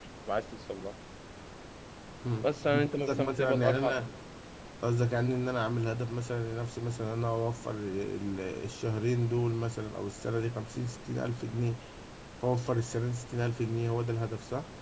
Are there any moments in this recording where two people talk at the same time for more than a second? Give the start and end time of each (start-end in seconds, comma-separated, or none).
2.4-4.1